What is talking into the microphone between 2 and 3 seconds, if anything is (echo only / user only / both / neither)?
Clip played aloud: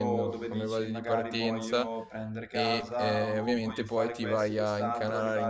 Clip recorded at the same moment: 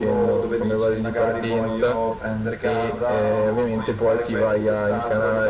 echo only